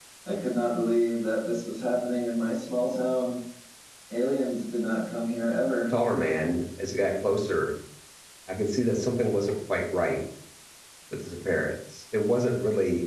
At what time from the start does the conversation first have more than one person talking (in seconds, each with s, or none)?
none